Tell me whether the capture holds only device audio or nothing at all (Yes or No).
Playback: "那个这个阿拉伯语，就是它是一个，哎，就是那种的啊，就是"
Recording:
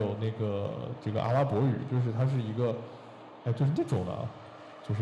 Yes